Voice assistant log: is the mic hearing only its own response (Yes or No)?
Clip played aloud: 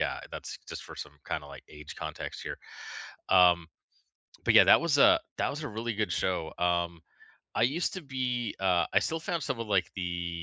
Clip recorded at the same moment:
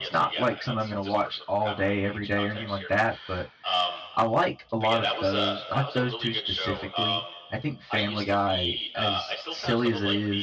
No